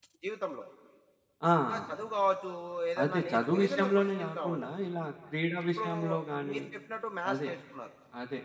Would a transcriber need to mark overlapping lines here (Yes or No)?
Yes